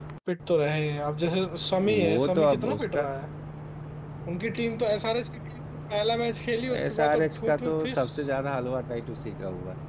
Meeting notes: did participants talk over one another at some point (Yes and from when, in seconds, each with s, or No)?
Yes, from 1.8 s